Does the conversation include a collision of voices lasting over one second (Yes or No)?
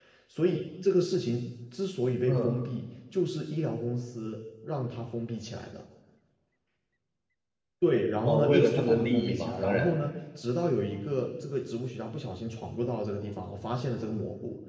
Yes